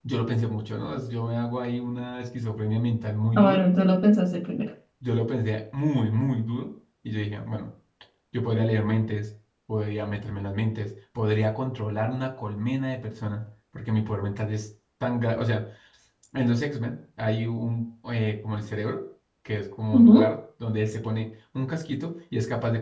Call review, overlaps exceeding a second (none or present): none